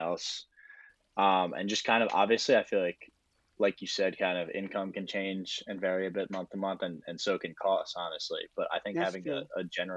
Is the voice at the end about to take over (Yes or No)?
No